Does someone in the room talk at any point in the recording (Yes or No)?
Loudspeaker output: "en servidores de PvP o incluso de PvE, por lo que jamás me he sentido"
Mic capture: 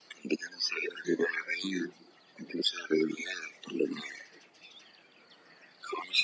No